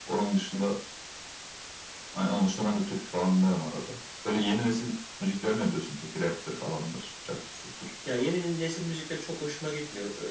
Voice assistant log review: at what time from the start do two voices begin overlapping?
none

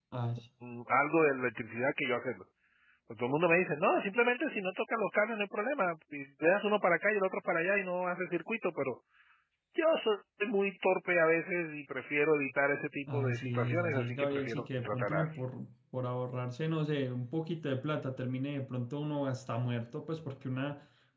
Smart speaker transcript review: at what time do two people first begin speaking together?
13.1 s

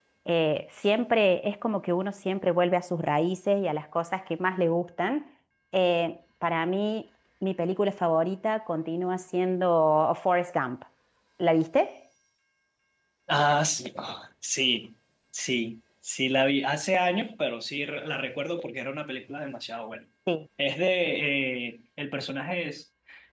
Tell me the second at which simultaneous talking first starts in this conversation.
none

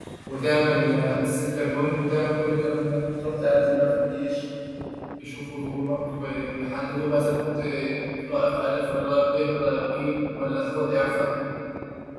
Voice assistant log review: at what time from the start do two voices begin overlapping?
none

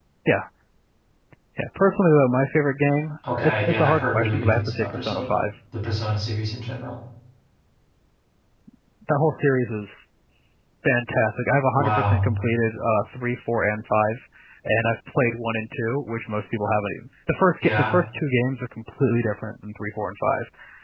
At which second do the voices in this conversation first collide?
3.3 s

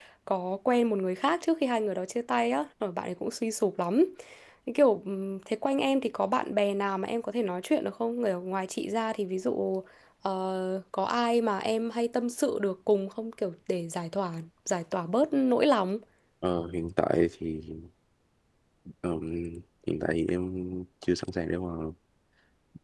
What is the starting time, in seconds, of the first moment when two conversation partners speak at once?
none

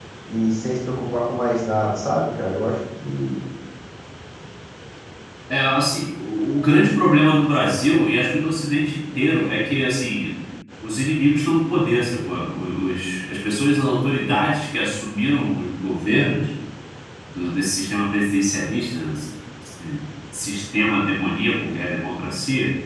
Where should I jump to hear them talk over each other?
none

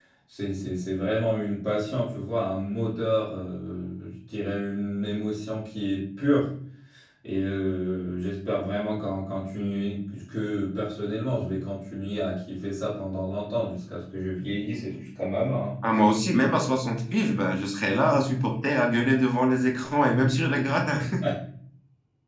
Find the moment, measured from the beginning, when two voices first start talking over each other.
none

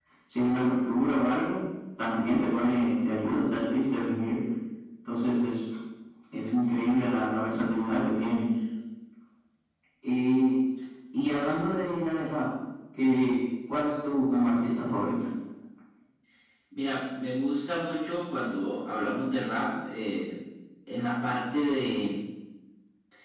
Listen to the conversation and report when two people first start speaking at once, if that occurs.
none

